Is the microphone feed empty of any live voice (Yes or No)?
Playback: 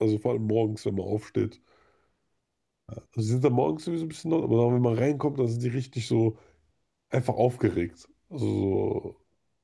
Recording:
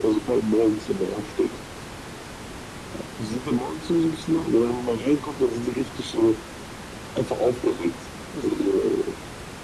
Yes